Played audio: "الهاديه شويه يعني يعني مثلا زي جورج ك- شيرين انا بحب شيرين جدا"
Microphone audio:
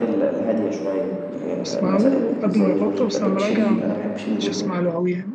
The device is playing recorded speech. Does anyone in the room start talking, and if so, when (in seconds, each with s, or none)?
1.6 s